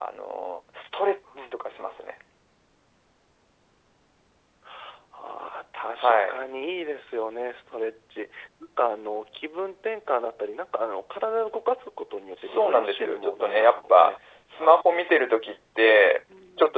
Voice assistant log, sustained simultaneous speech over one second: present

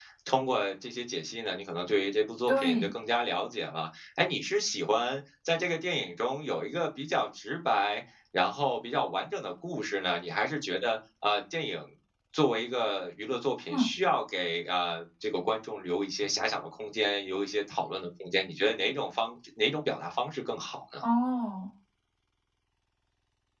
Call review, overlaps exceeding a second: none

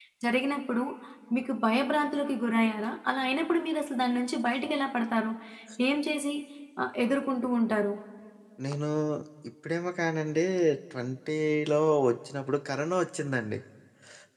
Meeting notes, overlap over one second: none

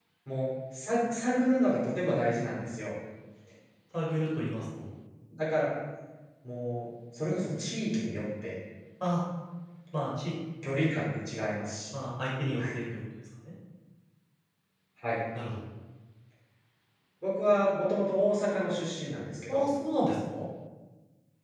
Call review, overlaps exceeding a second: none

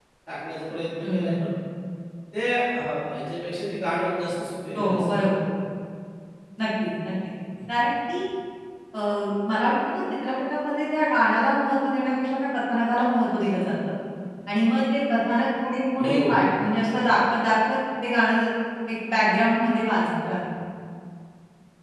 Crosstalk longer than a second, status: none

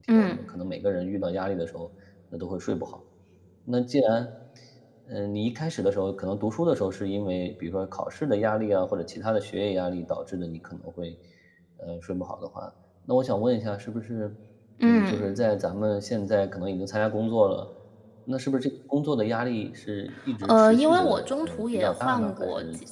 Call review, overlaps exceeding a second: present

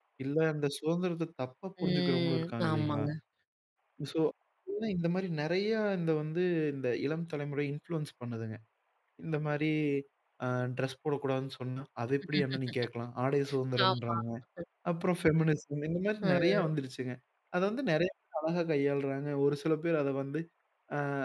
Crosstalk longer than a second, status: present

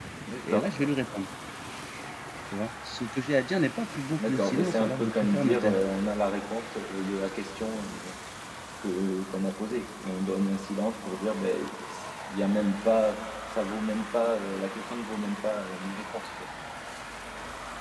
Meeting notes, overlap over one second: present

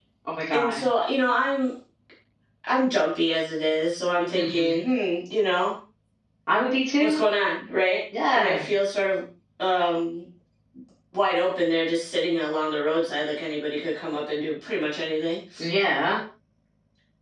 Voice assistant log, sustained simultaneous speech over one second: none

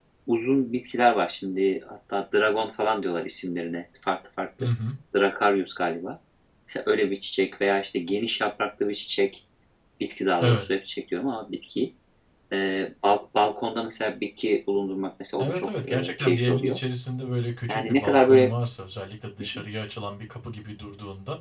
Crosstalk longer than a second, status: present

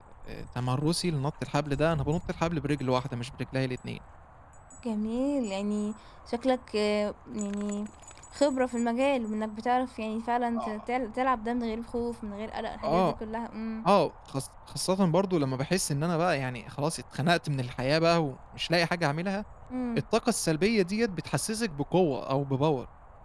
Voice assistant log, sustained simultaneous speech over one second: none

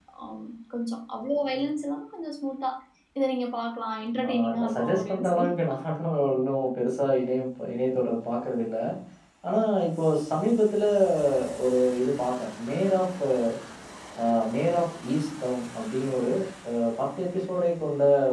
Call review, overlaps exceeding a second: present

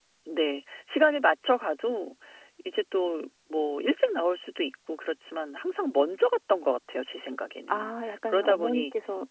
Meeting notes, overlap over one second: present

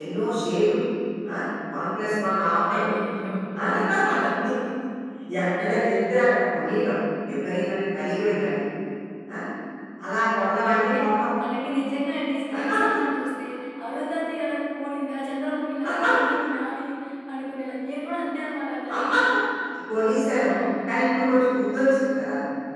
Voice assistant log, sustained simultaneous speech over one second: none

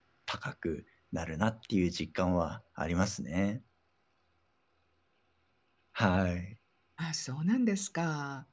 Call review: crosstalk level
none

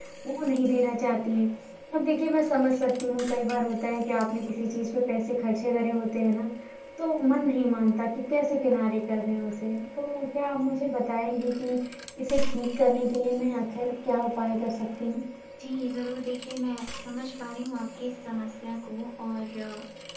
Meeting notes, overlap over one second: none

